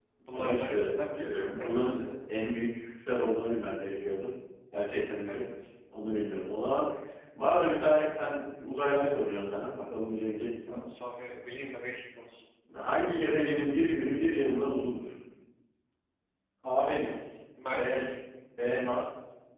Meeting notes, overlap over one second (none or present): present